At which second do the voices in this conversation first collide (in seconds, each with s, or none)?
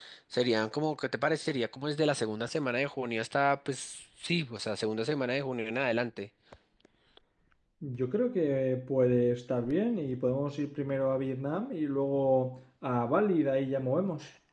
none